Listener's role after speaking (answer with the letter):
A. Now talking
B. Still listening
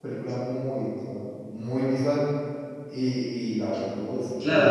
A